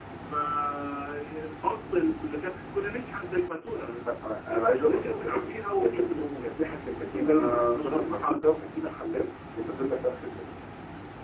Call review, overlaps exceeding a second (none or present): present